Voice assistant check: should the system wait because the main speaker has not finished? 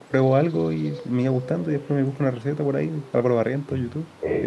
No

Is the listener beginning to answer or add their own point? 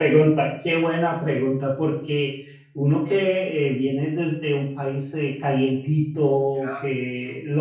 No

